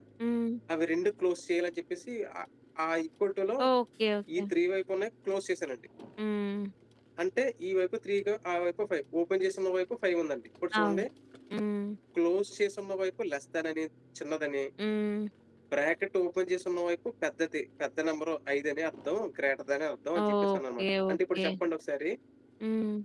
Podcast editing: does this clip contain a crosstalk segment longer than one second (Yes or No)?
Yes